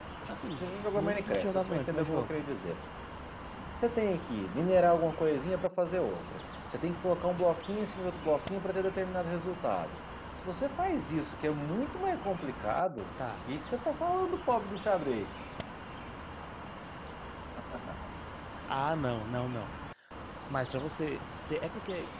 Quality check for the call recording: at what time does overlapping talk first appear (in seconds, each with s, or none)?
0.6 s